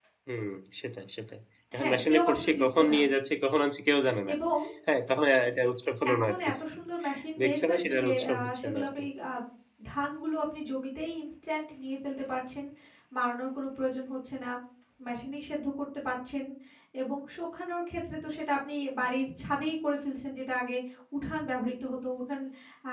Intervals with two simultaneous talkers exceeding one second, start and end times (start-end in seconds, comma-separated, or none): 1.8-3.0, 7.4-8.9